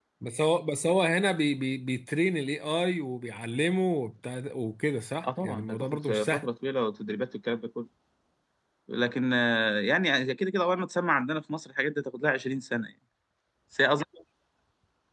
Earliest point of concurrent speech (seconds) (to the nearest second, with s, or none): 5 s